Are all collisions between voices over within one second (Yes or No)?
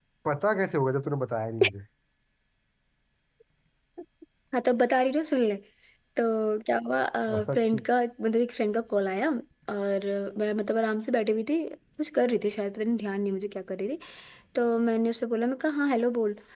Yes